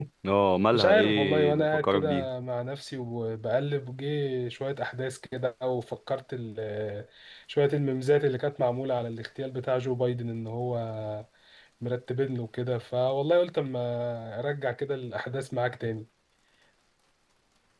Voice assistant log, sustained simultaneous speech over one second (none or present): present